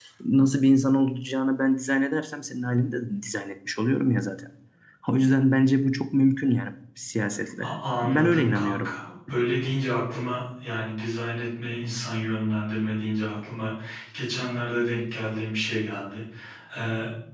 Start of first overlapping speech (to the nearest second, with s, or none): 8 s